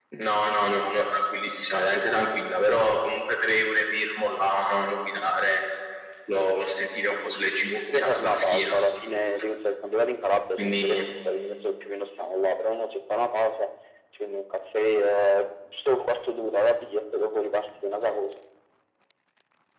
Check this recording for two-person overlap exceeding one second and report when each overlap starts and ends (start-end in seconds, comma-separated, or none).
7.1-8.8